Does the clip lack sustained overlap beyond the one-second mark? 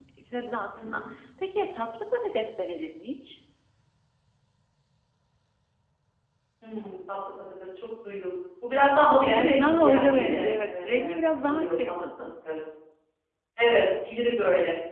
No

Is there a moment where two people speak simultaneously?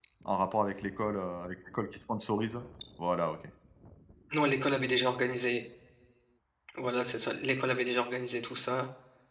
No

